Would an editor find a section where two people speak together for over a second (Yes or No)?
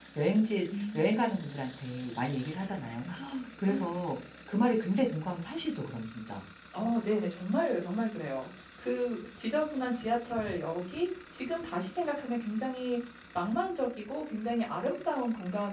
No